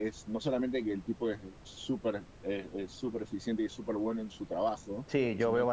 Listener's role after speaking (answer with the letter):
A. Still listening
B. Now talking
B